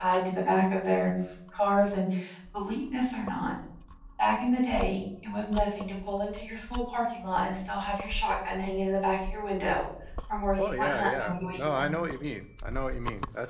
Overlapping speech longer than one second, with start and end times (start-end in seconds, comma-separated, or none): 10.6-11.9